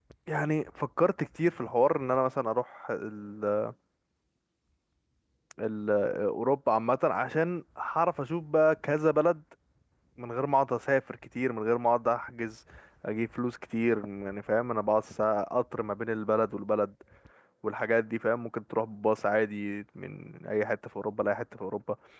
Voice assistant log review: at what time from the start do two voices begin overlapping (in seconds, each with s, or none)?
none